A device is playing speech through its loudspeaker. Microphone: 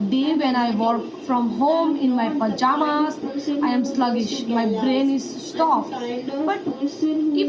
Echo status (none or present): present